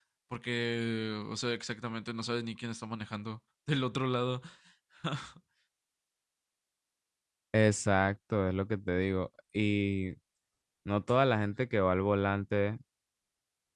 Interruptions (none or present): none